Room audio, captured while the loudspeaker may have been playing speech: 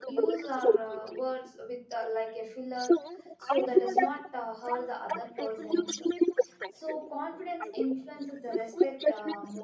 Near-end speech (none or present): present